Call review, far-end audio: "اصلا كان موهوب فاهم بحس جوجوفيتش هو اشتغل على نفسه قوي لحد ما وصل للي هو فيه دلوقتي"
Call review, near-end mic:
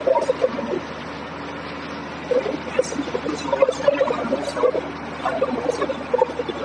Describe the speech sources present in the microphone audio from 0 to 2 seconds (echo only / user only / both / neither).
echo only